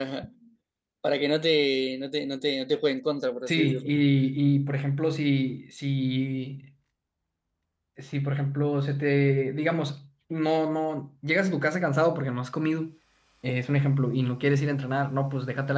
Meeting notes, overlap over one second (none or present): none